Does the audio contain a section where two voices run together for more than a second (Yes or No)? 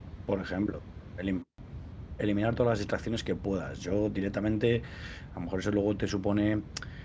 No